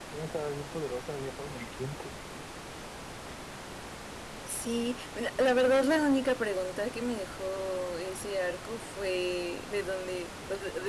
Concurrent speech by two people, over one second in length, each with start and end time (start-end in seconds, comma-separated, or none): none